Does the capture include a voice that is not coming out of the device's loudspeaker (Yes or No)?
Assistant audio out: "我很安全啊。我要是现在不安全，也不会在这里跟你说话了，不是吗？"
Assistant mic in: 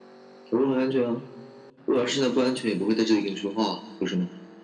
No